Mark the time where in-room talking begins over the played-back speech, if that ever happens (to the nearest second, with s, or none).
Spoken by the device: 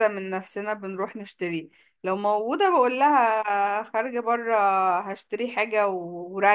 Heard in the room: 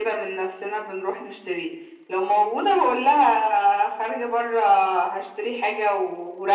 none